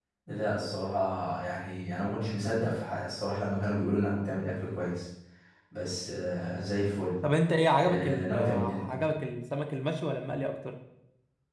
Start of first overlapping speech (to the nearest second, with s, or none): 8 s